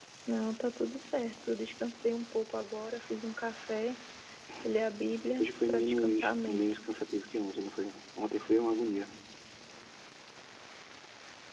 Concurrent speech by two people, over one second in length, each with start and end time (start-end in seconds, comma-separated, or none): 5.4-6.8